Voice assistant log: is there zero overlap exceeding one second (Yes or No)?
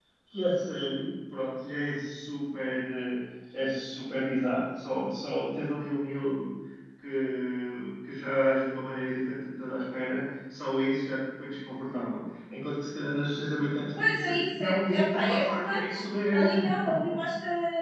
No